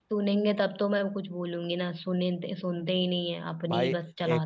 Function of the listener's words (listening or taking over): taking over